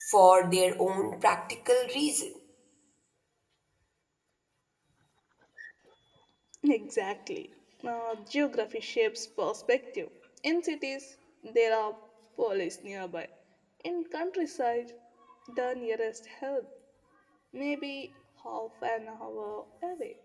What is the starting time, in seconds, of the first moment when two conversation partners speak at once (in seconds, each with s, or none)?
none